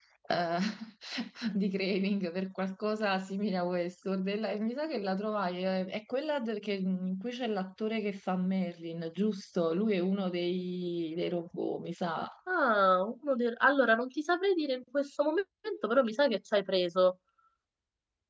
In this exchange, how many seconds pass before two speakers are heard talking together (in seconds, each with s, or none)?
none